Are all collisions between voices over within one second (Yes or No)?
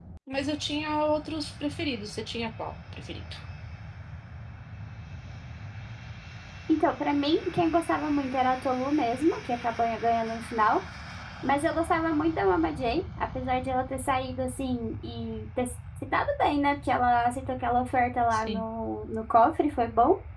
Yes